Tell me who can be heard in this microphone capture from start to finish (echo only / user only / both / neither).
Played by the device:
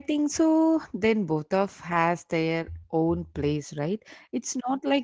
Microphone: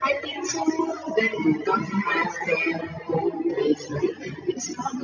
echo only